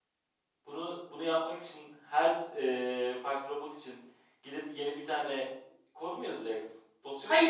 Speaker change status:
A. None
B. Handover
B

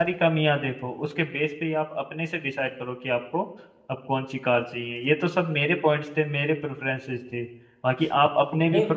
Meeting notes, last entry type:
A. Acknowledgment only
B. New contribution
A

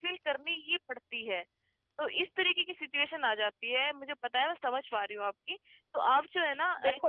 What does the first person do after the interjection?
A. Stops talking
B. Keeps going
A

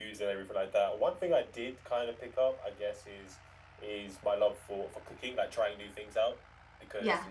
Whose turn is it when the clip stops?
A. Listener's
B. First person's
B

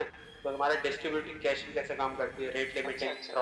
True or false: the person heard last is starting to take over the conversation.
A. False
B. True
B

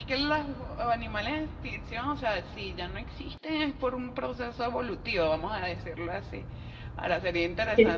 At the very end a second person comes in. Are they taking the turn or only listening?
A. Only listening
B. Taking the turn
B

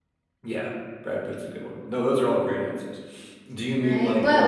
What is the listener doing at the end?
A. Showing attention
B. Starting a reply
B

